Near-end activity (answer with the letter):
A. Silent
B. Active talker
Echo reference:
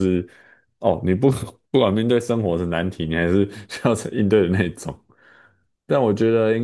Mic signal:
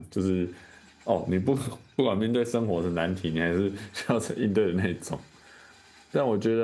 A